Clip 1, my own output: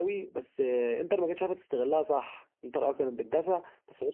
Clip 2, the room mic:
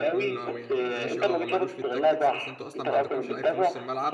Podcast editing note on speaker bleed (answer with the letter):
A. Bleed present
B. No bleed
A